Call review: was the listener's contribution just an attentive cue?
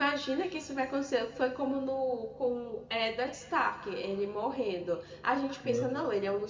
Yes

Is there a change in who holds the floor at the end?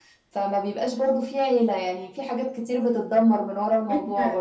Yes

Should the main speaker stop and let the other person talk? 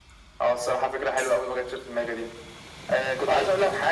No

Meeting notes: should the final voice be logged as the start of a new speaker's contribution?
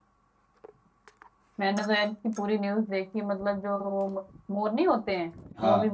No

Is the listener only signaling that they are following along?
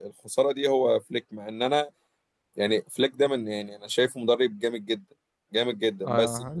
No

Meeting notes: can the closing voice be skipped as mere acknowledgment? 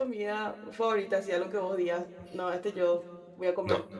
No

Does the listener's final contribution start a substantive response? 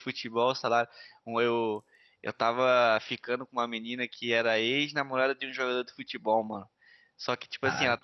No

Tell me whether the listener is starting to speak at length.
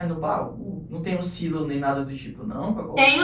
Yes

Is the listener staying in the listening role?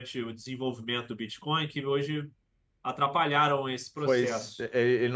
No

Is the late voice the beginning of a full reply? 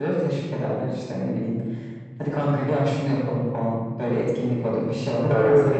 No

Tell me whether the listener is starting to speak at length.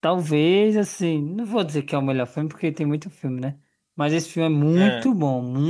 No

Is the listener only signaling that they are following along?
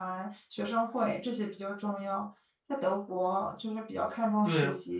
No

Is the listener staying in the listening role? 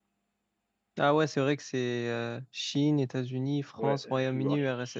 No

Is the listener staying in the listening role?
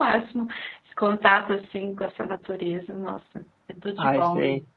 No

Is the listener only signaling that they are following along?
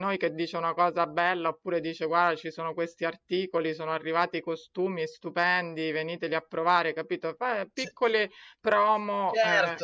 No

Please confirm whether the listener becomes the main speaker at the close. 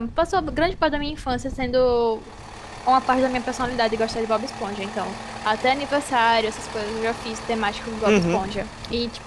No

